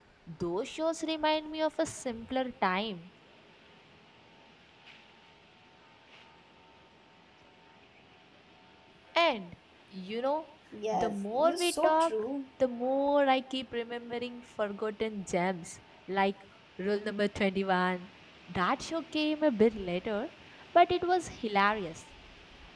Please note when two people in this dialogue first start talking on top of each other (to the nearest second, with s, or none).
11 s